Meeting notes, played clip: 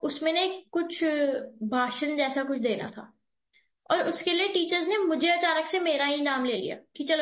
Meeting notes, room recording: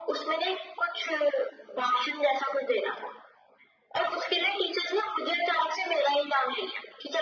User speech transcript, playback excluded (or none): none